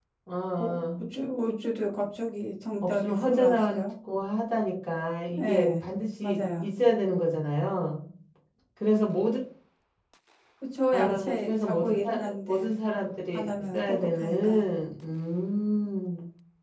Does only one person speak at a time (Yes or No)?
No